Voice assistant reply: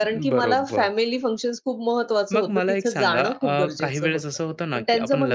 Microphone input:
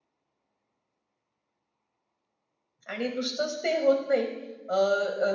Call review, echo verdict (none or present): none